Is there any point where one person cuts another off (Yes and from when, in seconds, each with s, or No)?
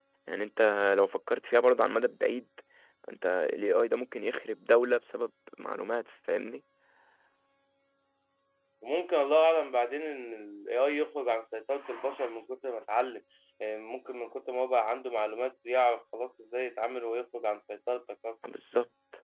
No